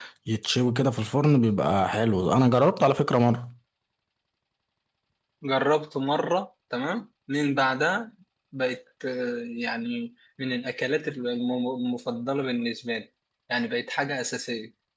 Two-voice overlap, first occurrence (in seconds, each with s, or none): none